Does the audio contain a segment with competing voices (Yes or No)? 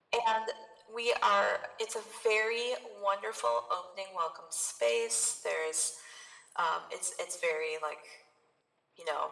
No